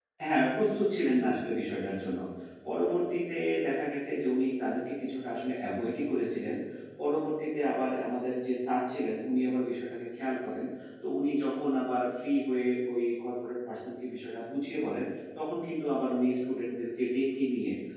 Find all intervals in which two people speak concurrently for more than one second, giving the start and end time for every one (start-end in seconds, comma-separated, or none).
none